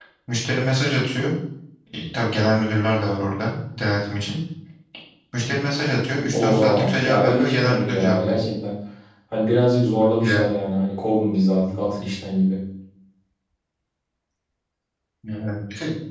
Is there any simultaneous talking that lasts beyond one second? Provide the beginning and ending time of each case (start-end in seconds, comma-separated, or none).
6.3-8.5